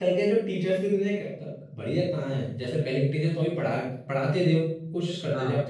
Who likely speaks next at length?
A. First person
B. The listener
A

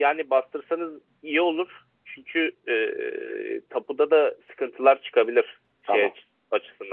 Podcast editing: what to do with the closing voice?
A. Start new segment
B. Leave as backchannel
B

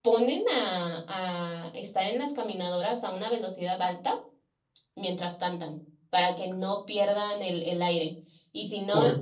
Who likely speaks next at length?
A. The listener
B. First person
B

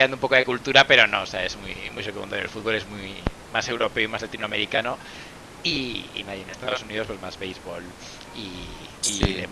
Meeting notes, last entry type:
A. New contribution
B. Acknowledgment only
B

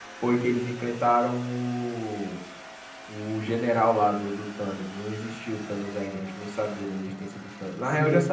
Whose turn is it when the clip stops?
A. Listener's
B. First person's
B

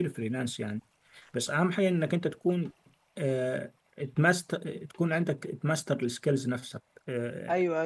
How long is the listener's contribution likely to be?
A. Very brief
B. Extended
B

